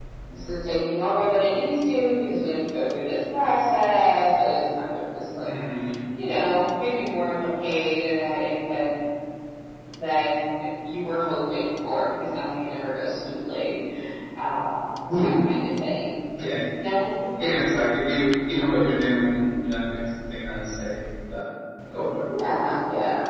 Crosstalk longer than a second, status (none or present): none